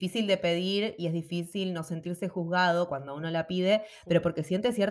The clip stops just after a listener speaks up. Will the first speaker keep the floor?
Yes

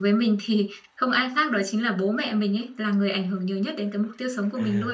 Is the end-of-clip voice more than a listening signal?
Yes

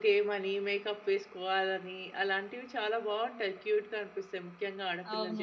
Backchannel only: No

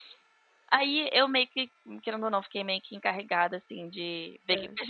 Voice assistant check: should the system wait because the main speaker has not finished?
Yes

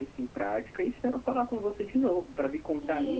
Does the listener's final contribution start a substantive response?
Yes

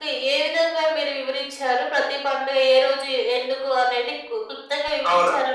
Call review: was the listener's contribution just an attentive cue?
No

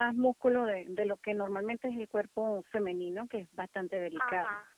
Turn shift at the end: Yes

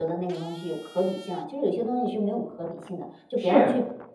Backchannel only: No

